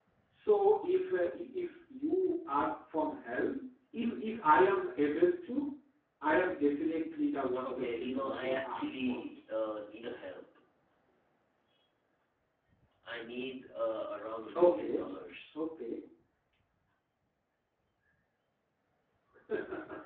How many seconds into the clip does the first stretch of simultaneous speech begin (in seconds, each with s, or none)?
7.6 s